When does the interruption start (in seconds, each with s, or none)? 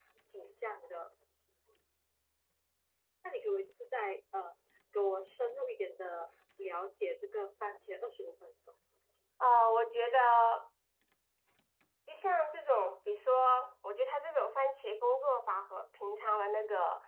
none